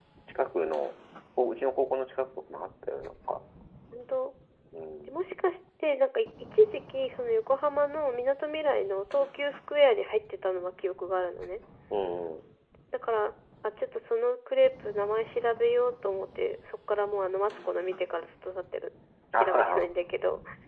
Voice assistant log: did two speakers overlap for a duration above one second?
No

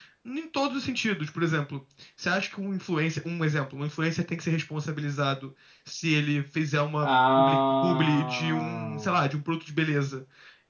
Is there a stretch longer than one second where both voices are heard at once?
Yes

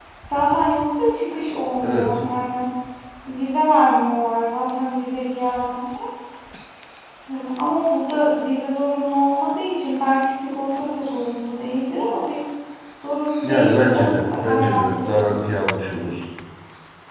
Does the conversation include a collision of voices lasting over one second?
Yes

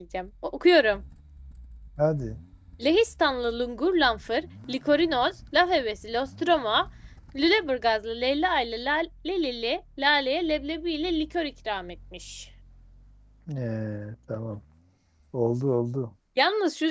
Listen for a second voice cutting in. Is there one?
No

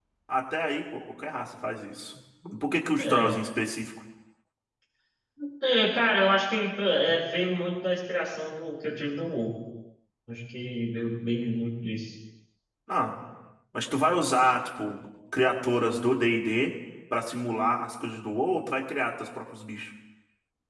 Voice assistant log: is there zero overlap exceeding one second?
Yes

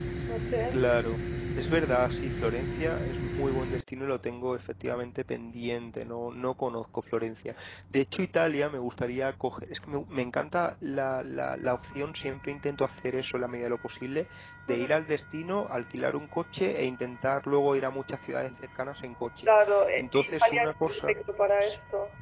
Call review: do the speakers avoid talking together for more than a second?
No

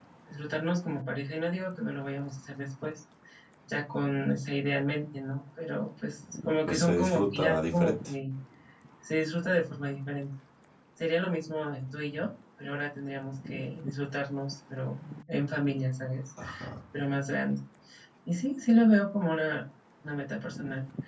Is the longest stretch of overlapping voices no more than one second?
No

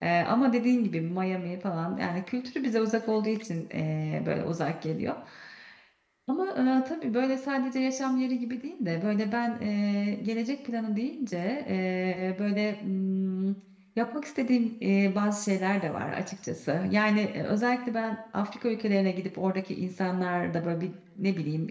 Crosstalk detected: No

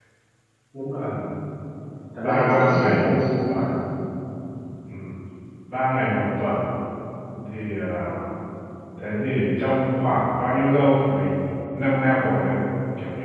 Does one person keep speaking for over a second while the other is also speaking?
Yes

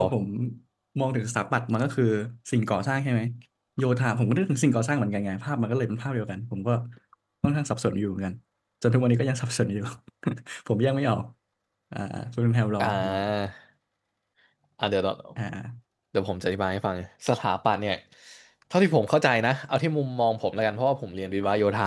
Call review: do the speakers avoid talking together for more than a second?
Yes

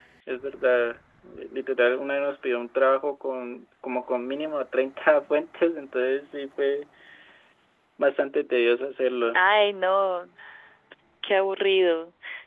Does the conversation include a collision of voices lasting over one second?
No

